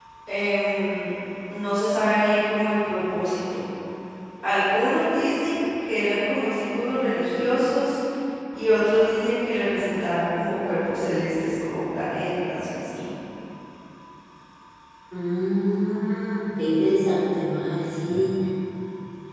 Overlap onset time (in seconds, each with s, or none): none